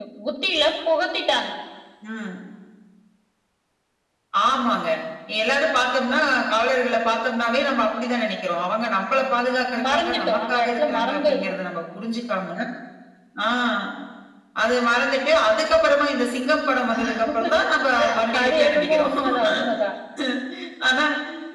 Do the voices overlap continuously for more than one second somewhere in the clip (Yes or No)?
Yes